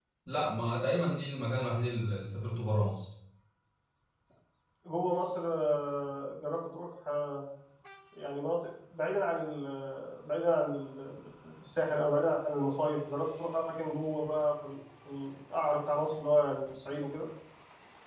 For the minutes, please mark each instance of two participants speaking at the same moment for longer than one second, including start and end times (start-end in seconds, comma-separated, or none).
none